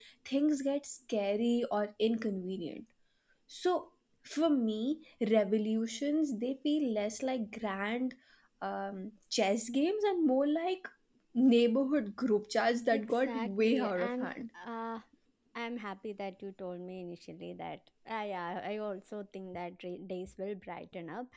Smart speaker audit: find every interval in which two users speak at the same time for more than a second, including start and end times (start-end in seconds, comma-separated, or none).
12.9-14.4